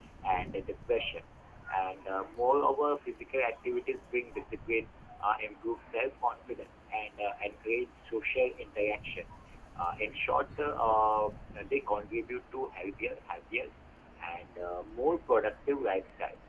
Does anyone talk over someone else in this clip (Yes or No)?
No